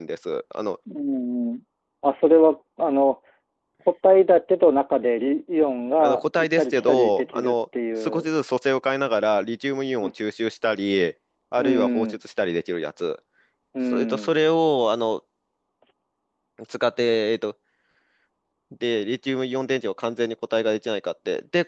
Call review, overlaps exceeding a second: present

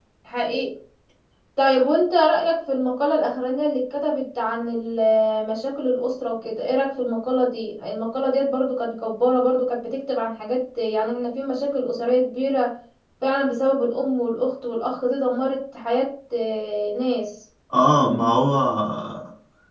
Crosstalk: none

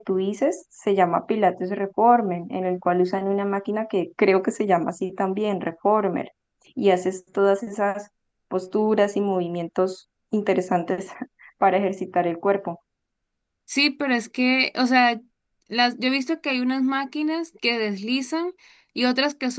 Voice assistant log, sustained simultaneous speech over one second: none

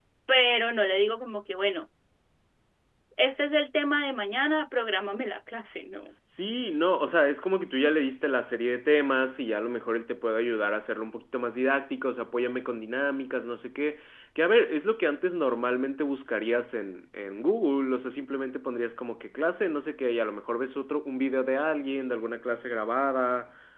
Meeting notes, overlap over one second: none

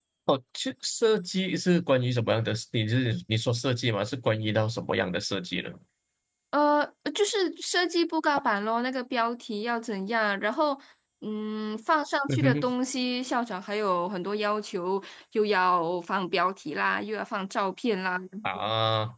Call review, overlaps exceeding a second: none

